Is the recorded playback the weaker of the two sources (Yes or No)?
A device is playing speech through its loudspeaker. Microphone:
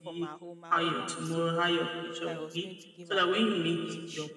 No